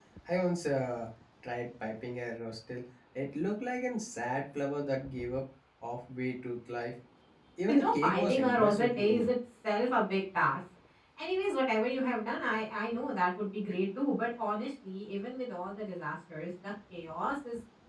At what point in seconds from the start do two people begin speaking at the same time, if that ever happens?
7.7 s

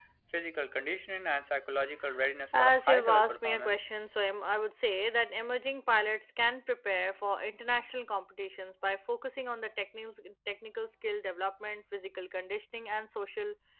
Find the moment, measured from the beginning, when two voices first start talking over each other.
2.6 s

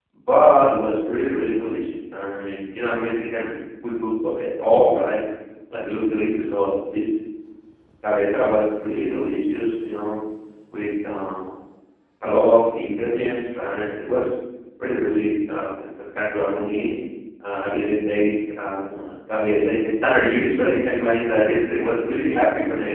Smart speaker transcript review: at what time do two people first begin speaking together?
none

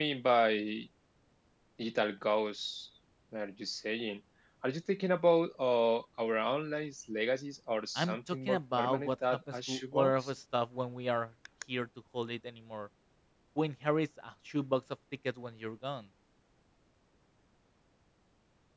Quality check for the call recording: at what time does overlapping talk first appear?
8.0 s

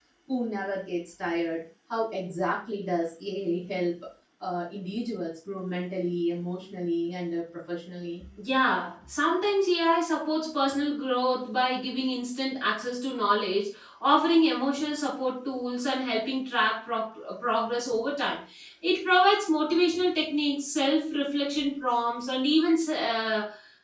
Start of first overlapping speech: none

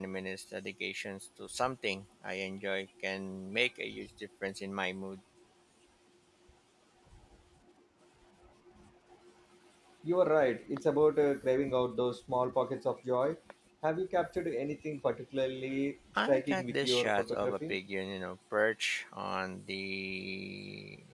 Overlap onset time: 16.2 s

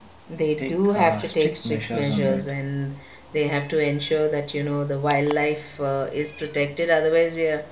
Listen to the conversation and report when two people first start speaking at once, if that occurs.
0.6 s

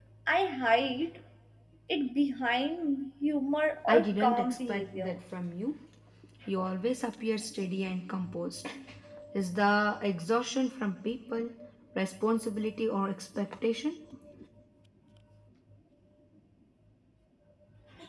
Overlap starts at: 3.9 s

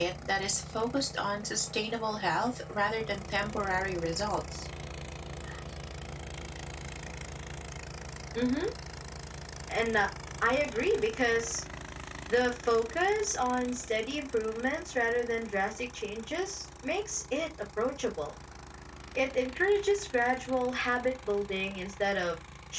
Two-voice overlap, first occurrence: none

